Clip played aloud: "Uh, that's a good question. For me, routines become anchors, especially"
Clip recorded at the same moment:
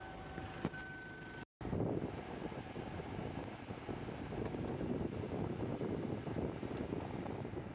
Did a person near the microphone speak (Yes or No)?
No